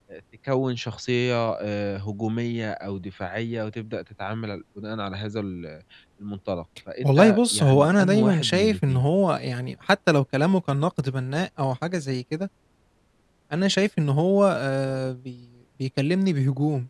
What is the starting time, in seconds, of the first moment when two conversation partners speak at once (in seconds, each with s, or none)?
7.0 s